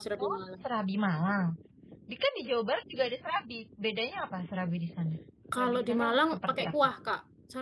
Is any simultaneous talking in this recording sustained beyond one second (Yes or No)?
Yes